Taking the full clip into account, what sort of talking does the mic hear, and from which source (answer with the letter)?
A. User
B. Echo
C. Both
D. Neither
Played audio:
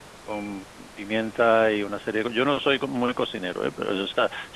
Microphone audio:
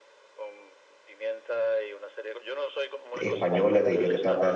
C